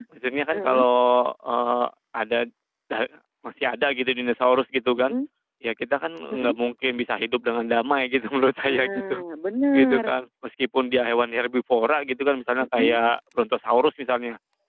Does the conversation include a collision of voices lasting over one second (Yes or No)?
No